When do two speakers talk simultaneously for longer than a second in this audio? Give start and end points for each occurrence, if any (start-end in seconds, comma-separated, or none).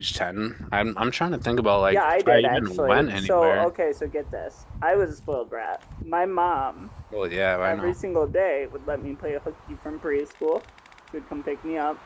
1.9-3.7